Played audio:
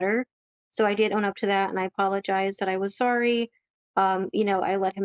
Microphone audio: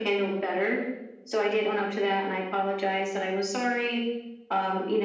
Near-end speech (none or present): none